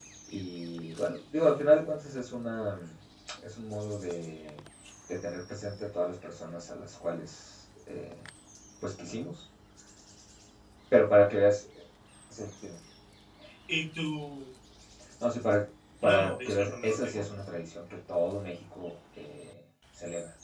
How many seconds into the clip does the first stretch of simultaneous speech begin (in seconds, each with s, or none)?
16.0 s